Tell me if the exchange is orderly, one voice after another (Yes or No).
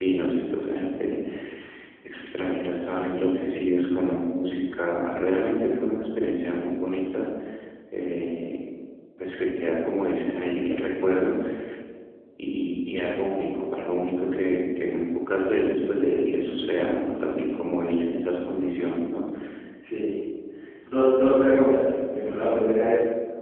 Yes